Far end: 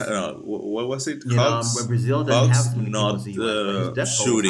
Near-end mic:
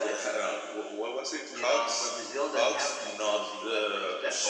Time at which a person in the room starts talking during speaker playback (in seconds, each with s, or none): none